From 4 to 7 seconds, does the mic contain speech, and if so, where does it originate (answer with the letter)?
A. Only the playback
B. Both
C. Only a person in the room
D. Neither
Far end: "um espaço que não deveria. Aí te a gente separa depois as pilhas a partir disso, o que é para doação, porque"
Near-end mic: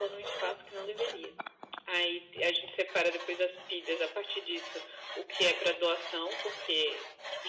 A